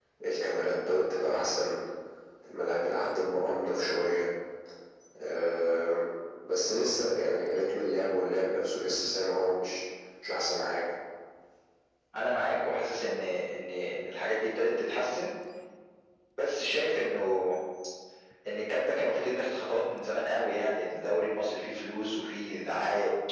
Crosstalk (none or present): none